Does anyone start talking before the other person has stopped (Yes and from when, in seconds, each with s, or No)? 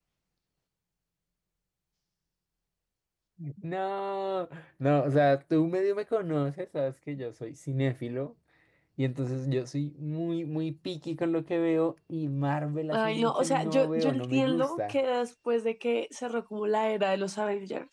Yes, from 12.9 s